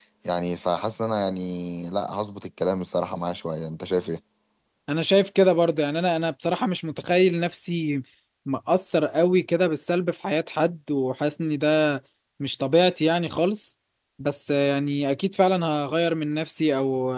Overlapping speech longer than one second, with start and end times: none

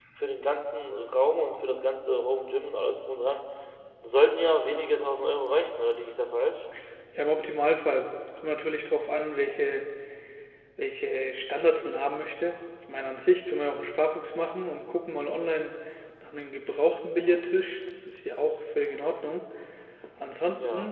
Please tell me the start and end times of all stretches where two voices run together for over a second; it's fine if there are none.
none

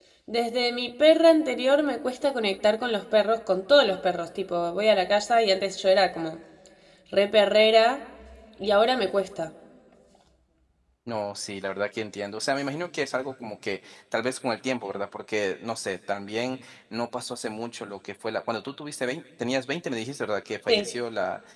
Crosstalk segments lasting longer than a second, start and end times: none

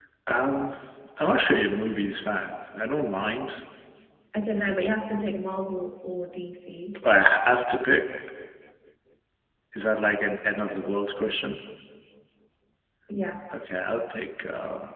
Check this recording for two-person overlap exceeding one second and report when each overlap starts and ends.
none

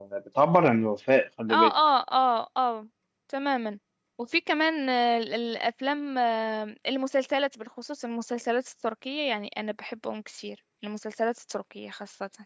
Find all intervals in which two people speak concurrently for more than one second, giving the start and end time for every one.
none

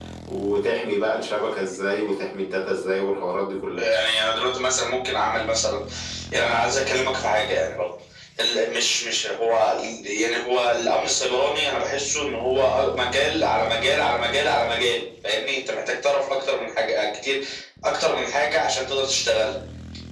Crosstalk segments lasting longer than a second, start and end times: none

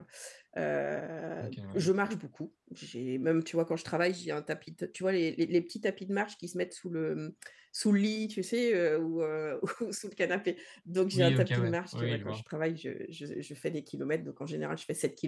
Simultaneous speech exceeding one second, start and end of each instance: 11.1-12.4

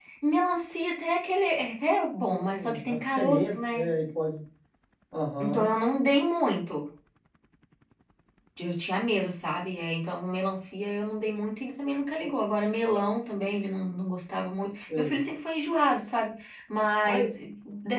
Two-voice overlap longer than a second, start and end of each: 2.2-3.9

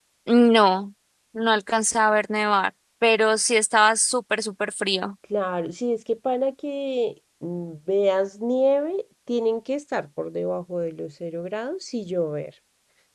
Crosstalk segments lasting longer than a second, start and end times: none

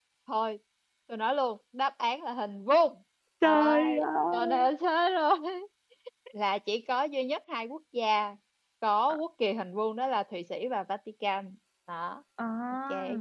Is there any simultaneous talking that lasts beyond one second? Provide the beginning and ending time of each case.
3.4-4.7

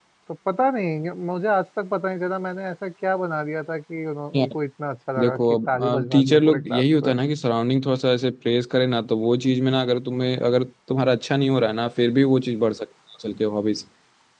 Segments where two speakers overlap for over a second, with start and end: 5.2-7.1

